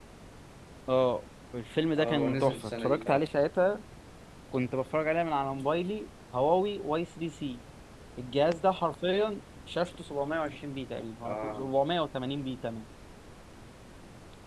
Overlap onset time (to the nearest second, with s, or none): 2 s